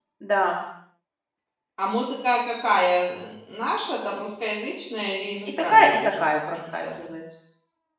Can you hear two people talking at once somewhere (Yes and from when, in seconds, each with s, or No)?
Yes, from 5.6 s